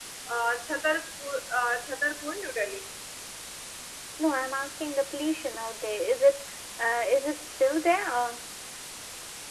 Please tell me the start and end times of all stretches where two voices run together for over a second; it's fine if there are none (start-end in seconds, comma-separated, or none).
none